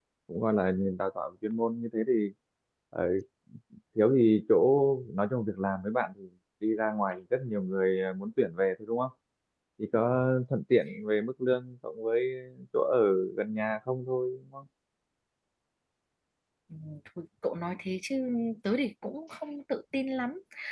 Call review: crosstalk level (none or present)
none